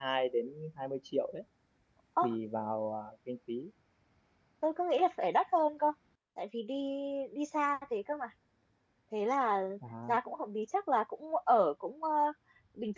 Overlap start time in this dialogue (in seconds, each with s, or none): none